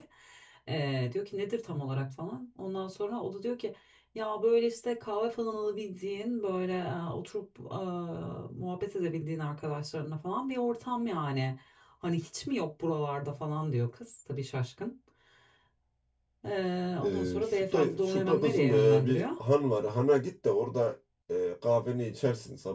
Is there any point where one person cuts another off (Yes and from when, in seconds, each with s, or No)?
Yes, from 17.0 s